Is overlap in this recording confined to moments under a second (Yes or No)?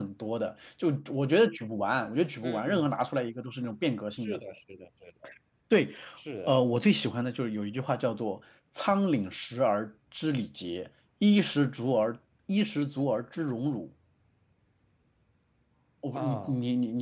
Yes